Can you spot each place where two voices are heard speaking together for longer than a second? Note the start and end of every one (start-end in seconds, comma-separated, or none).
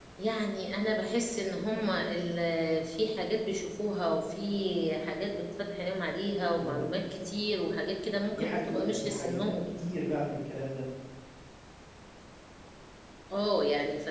8.3-9.6